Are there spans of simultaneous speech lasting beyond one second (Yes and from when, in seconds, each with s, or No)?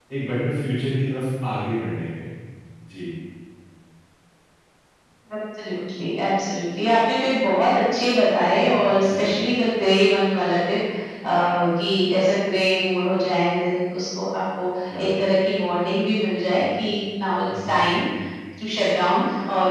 No